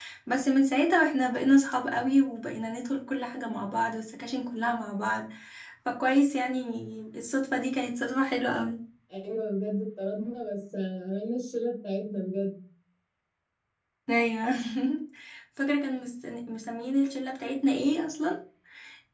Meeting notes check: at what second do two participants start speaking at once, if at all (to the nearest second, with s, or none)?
none